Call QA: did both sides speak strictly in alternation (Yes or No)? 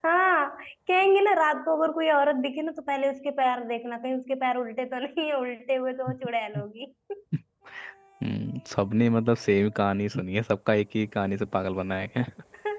Yes